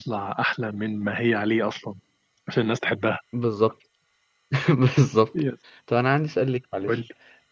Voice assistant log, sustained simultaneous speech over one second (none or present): none